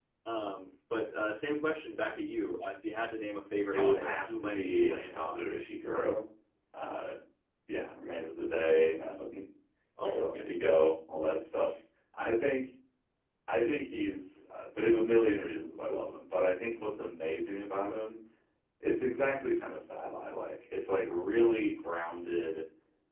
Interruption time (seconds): 4 s

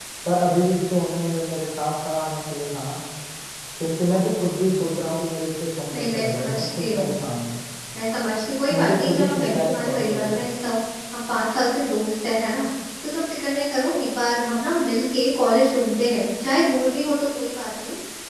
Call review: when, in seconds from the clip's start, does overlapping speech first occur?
6 s

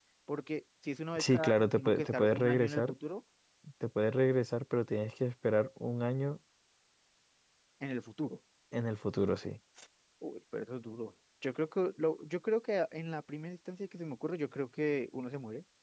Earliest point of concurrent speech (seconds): 1 s

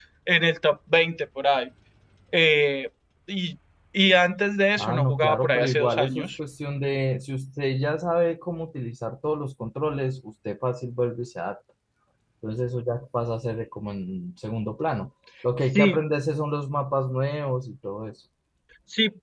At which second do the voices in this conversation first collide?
5 s

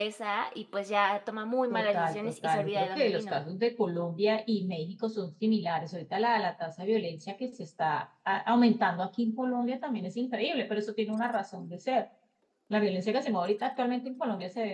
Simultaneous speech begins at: 2 s

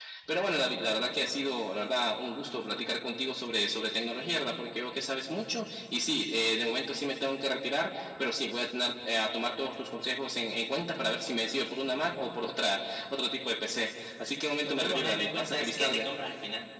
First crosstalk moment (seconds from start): 15 s

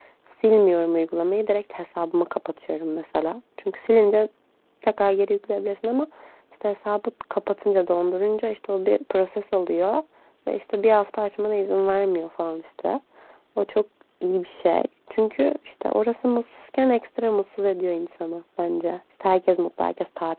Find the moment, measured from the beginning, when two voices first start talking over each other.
none

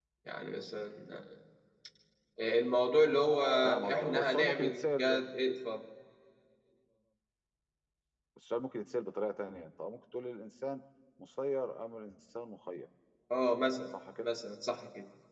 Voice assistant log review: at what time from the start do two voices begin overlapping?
4 s

